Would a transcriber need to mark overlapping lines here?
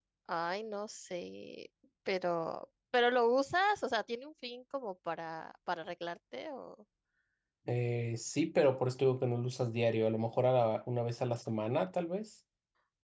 No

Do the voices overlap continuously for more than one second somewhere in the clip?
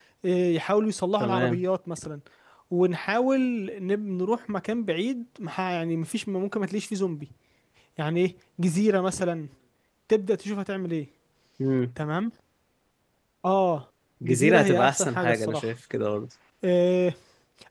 Yes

